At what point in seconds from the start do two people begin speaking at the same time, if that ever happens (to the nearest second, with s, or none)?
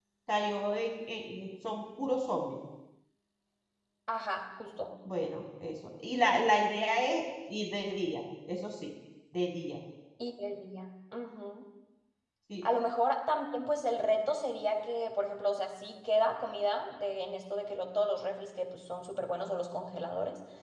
none